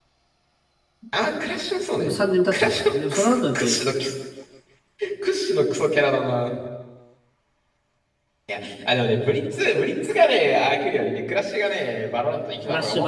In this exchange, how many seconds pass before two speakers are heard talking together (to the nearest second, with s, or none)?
3 s